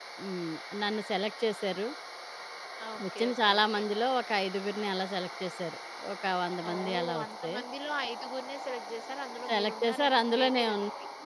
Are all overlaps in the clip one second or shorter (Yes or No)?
No